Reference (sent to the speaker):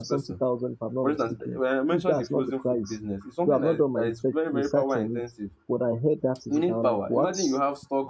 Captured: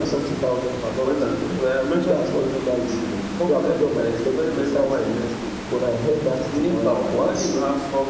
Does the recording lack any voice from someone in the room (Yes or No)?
Yes